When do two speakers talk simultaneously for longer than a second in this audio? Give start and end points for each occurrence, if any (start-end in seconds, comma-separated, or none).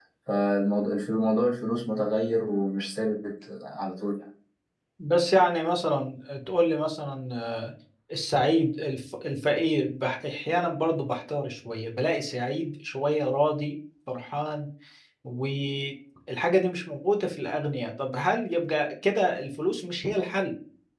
none